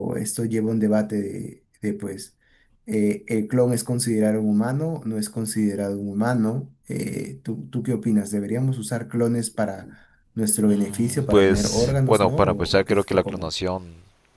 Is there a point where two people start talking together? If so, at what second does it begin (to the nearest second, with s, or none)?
11 s